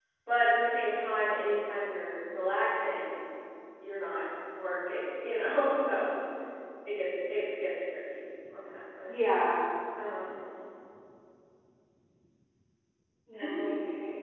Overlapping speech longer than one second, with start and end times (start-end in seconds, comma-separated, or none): none